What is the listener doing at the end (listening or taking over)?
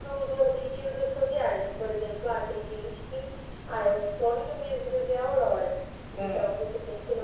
listening